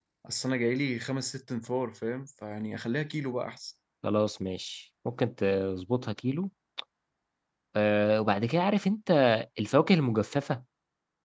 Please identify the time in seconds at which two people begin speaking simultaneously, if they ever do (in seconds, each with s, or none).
none